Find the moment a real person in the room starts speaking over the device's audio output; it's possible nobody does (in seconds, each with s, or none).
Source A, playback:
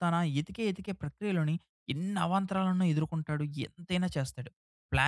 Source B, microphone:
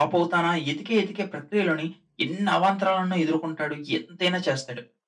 none